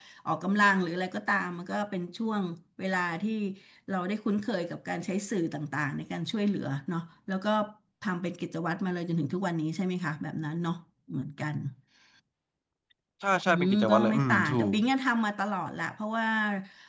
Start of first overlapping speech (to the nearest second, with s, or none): 13 s